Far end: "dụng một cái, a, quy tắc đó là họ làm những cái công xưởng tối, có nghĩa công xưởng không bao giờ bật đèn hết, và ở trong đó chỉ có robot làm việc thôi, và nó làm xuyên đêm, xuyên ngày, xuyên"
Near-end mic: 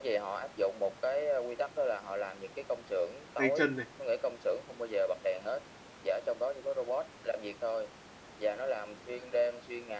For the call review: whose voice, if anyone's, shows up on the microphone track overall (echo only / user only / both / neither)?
both